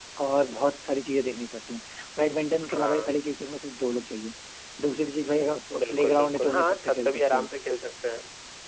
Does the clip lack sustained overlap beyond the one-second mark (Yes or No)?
No